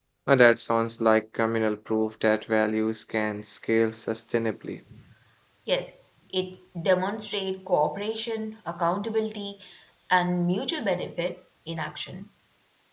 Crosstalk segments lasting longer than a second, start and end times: none

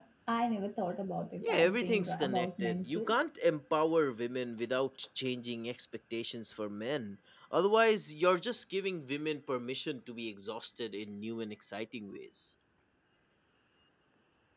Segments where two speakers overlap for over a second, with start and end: 1.4-3.1

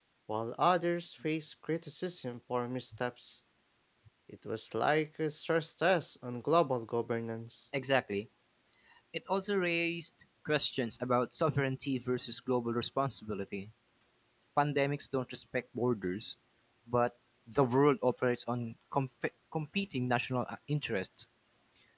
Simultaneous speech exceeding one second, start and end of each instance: none

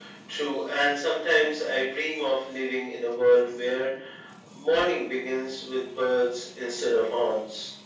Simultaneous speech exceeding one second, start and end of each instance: none

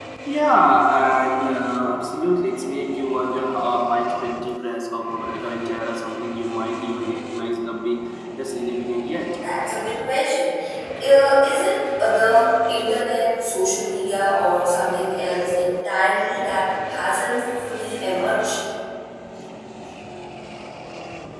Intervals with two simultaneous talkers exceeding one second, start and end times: none

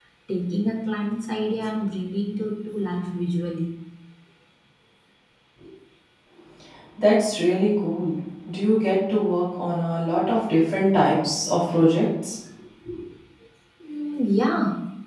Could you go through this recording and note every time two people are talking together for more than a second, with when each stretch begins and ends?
none

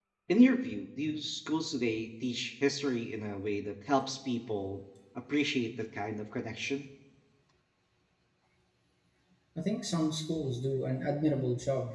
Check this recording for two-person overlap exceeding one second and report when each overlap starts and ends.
none

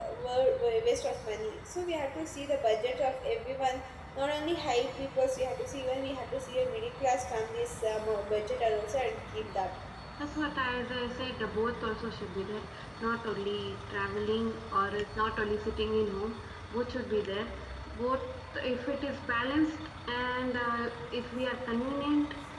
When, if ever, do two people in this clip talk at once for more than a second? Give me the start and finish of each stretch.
none

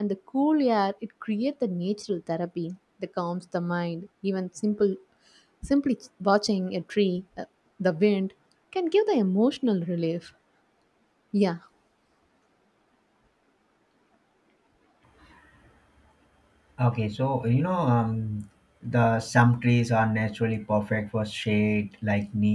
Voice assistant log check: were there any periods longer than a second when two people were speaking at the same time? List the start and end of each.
none

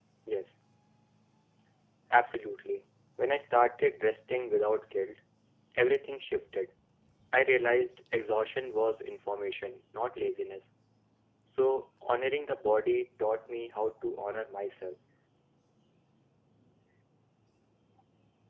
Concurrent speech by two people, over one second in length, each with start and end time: none

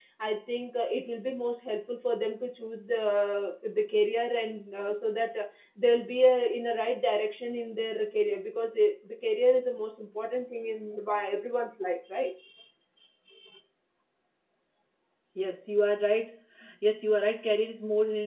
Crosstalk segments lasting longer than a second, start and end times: none

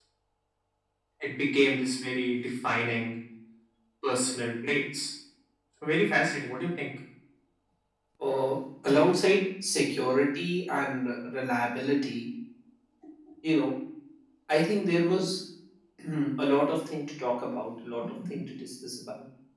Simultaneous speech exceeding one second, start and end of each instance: none

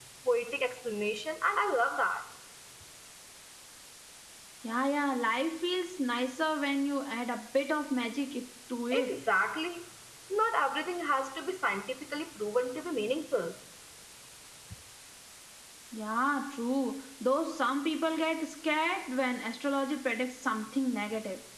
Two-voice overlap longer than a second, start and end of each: none

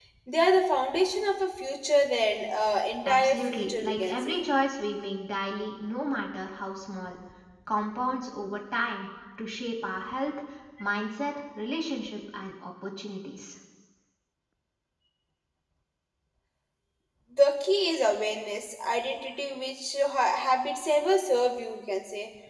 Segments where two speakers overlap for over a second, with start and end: 3.0-4.4

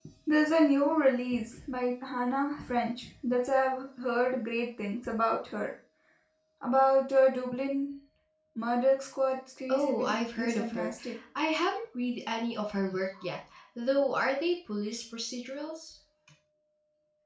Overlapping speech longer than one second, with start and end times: 9.7-10.9

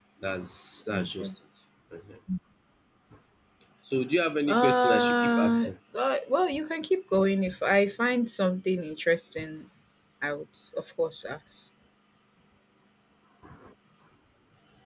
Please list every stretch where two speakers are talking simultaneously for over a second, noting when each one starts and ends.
4.5-5.7

